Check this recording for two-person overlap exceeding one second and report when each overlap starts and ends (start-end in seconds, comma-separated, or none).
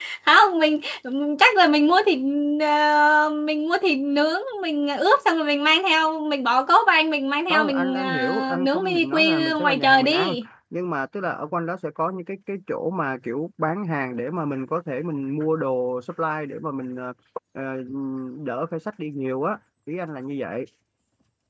7.5-10.4